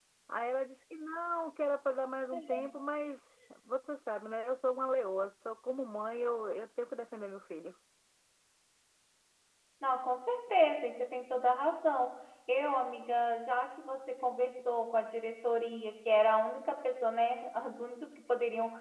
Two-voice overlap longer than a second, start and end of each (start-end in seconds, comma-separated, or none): none